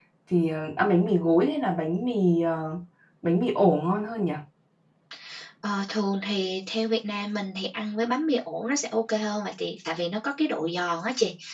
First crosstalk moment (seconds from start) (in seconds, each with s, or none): none